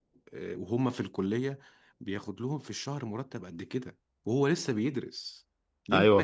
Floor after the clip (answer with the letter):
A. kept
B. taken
B